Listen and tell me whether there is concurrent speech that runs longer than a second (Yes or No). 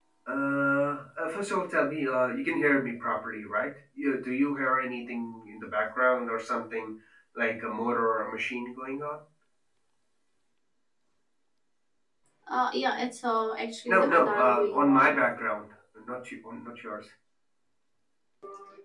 Yes